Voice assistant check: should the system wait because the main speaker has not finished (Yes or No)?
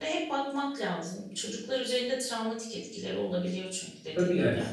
No